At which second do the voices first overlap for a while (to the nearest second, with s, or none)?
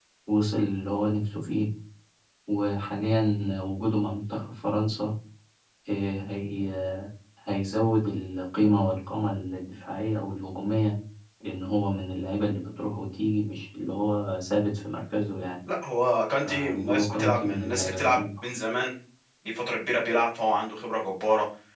16 s